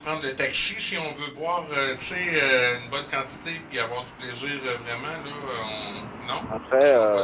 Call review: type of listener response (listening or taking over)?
listening